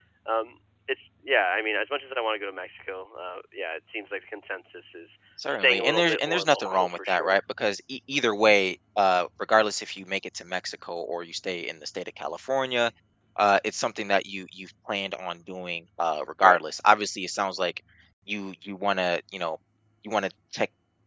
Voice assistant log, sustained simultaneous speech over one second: present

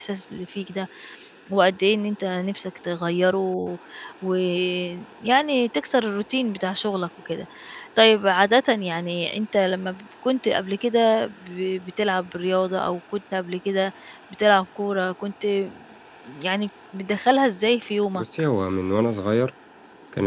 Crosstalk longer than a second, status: none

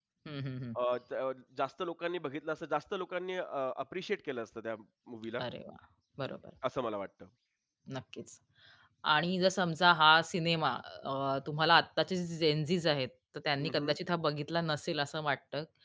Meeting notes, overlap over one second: none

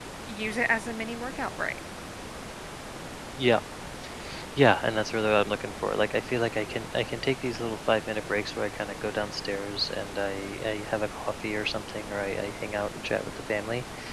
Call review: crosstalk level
none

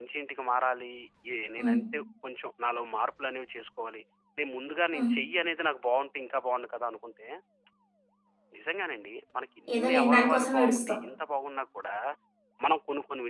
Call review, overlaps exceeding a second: present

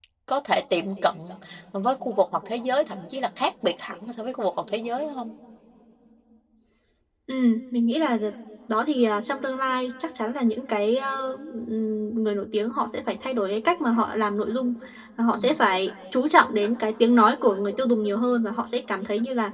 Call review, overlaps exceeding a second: none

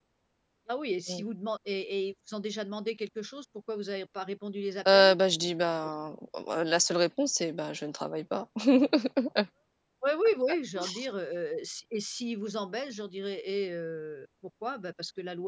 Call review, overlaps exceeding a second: none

